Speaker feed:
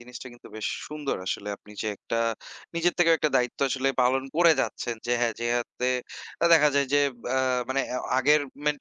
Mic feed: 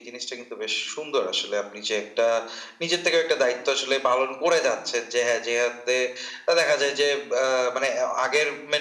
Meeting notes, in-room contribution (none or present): none